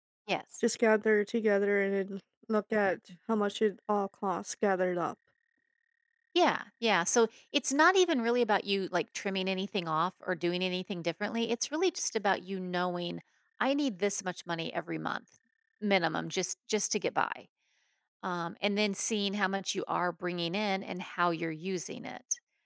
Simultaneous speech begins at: none

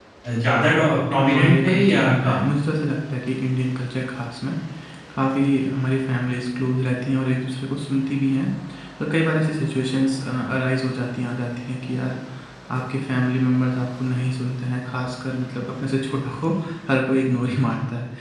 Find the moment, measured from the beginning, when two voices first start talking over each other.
1.1 s

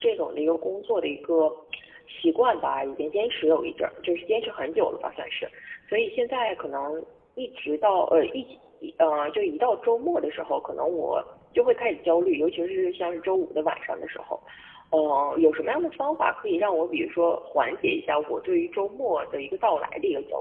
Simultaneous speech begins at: none

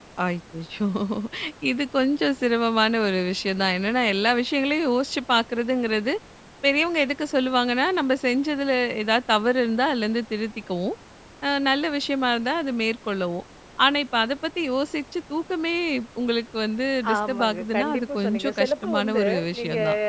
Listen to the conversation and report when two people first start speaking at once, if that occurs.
17.0 s

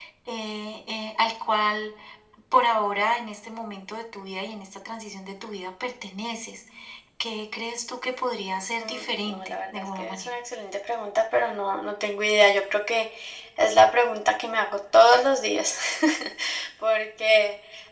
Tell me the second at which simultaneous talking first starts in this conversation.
8.8 s

